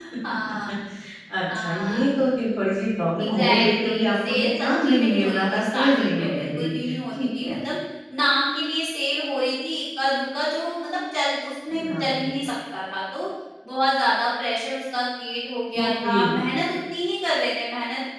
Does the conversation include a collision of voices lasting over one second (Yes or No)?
Yes